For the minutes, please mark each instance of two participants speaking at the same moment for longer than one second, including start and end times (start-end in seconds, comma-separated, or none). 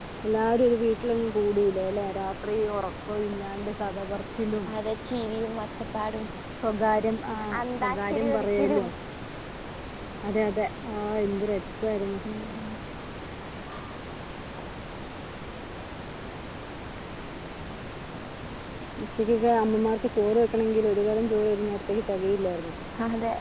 7.6-8.8